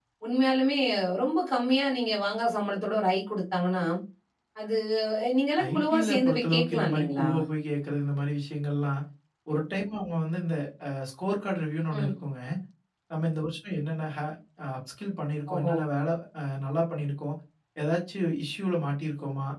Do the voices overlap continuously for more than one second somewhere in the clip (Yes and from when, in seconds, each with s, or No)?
Yes, from 5.7 s